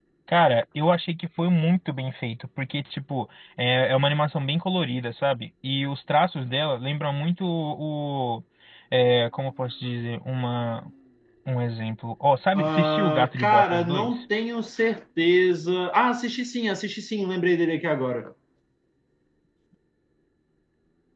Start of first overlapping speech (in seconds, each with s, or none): 12.6 s